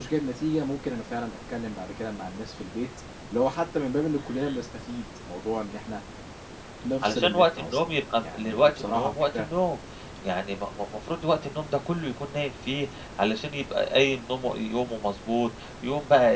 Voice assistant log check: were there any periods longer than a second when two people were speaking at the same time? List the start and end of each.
7.0-9.5

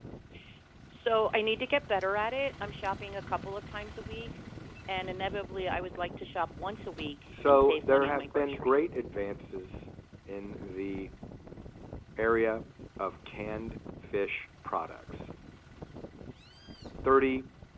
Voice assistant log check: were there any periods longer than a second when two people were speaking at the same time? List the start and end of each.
7.5-8.8

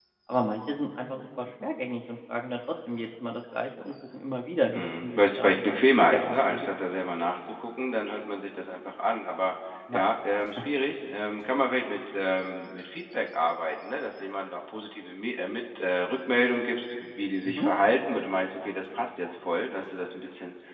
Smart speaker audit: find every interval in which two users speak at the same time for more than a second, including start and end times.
4.7-6.7

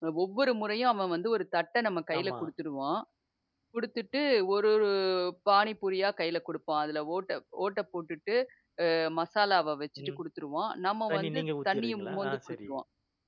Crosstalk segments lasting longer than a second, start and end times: 11.1-12.6

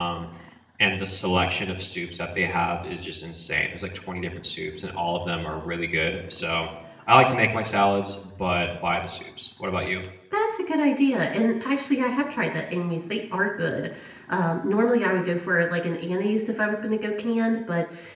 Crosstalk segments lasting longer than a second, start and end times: none

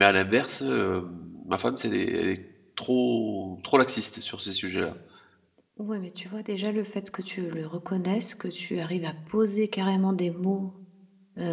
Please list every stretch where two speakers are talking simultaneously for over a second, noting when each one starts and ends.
none

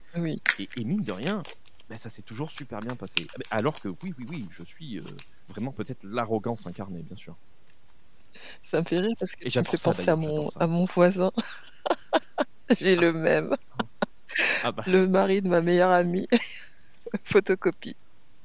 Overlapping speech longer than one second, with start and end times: 9.4-10.7

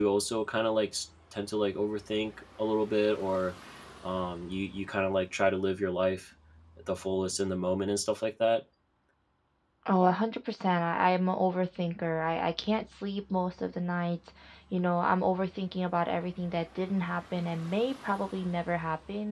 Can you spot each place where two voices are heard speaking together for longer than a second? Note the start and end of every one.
none

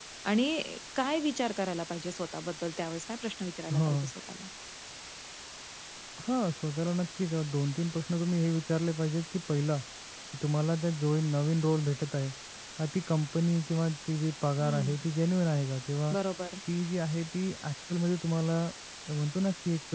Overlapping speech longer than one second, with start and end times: none

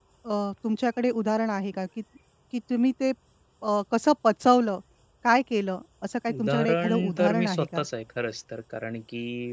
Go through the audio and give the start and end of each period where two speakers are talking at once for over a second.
6.4-7.8

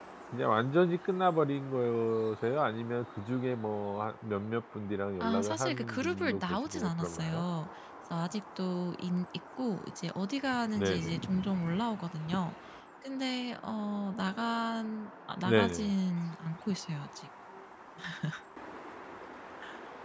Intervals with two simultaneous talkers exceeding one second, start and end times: 5.2-7.4

